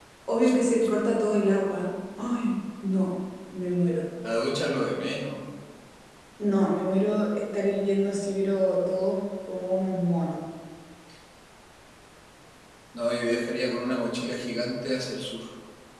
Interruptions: none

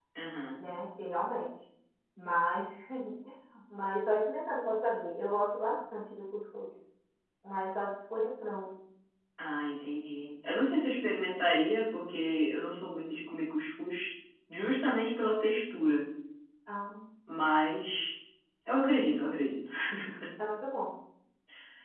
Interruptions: none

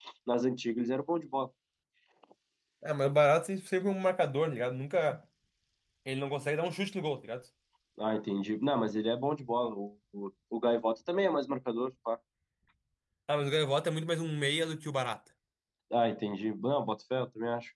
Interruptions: none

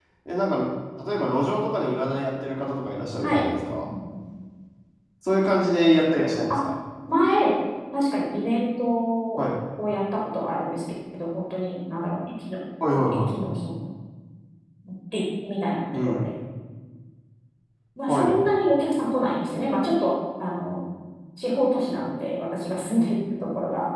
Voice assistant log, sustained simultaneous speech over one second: none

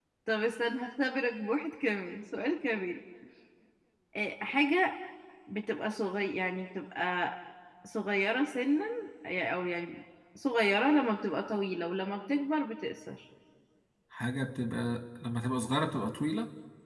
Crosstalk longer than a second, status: none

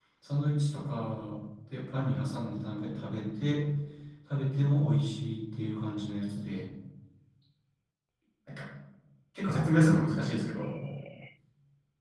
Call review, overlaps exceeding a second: present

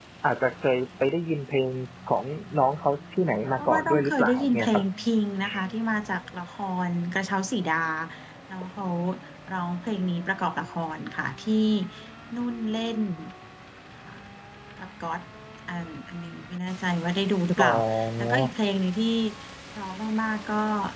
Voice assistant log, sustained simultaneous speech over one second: present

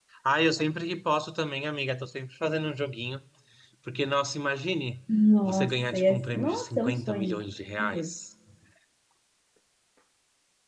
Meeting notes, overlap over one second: present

